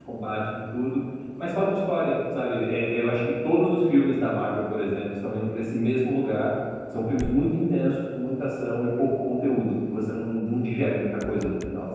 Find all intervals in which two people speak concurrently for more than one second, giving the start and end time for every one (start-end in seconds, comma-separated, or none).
none